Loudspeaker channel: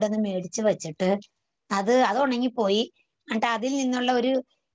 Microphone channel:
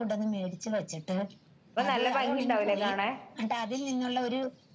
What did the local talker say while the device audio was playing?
അപ്പൊ നല്ല ഭംഗി ഉണ്ടാവൂലേ കാണാൻ

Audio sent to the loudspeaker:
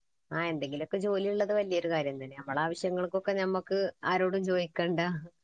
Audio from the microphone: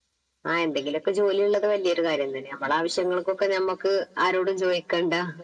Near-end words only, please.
none

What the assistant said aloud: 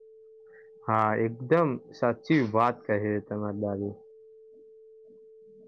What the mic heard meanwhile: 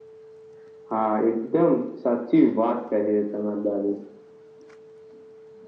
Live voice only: none

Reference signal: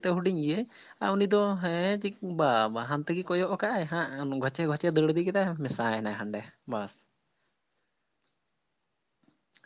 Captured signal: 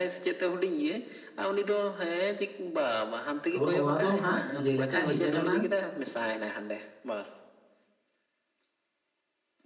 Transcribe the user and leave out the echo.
ᱛᱚ ᱱᱚᱣᱟ ᱫᱚ ᱦᱟᱸᱜ ᱡᱮᱞᱮᱠᱟ ᱦᱮᱡ ᱟᱠᱟᱱᱟ

